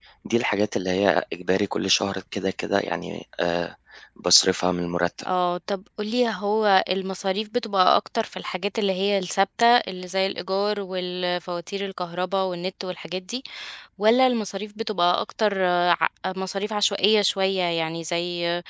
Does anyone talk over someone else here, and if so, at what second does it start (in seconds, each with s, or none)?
none